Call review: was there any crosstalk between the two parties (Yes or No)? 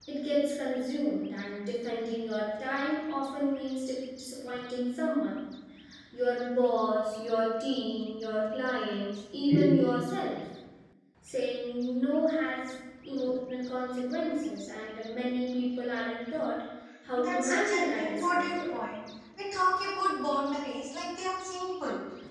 Yes